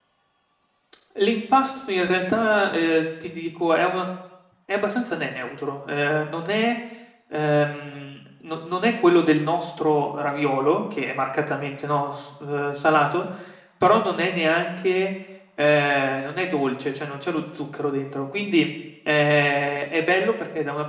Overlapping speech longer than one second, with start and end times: none

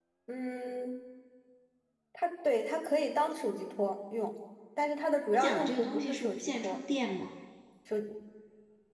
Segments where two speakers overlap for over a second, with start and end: 5.3-6.8

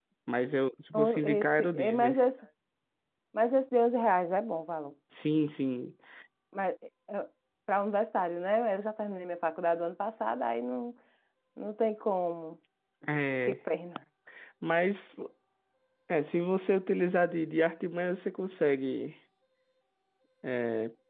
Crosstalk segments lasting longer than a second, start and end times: 0.9-2.2

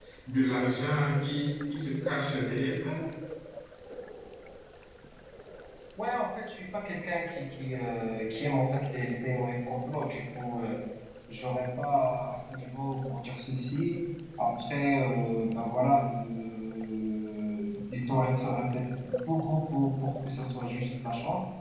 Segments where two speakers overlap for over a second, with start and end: none

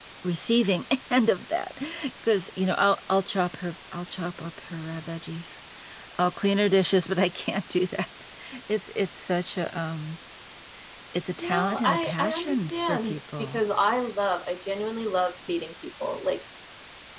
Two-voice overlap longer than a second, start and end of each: 11.3-13.6

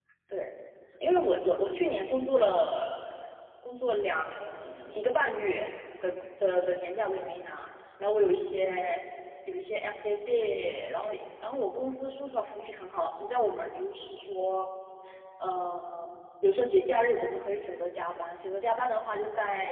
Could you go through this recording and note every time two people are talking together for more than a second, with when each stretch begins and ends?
none

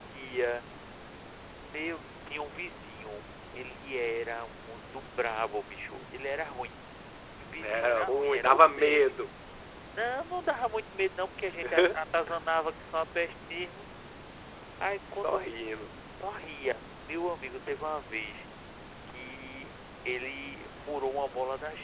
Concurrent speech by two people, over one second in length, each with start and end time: 7.6-9.1

